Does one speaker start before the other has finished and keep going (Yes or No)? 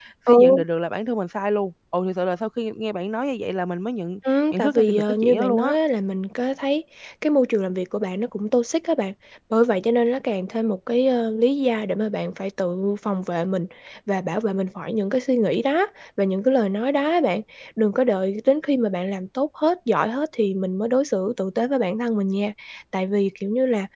Yes